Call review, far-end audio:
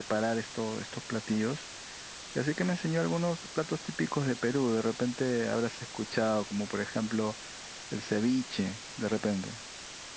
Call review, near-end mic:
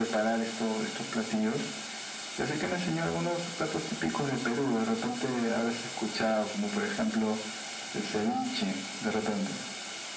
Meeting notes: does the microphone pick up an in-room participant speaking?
No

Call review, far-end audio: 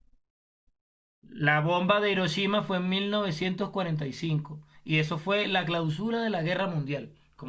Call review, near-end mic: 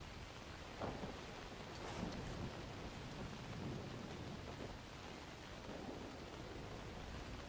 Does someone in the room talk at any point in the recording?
No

